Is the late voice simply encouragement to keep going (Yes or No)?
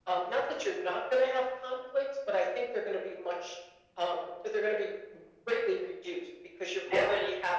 Yes